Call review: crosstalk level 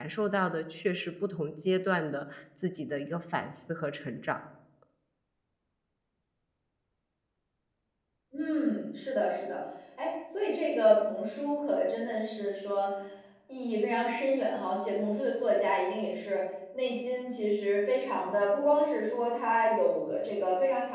none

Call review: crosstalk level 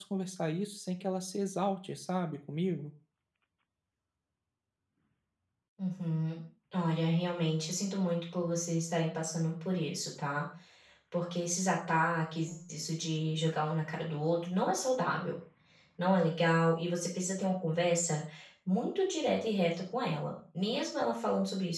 none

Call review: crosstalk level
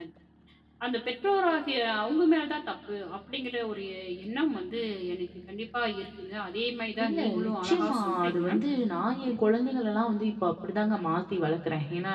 present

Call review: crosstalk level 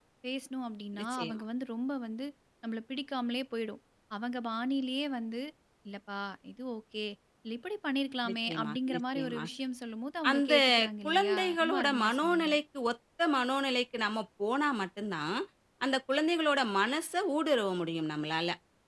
present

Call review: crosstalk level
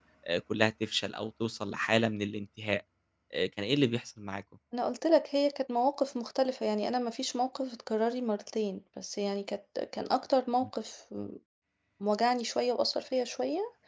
none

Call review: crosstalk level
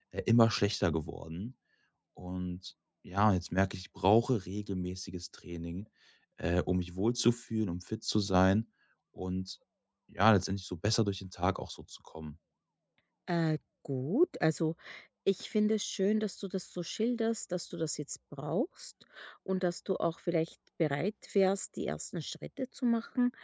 none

